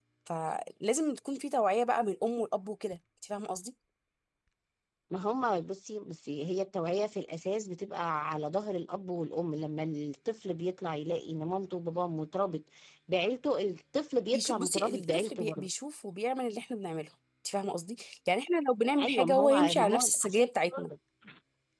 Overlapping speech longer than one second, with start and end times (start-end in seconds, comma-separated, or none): 14.3-15.7, 19.0-20.5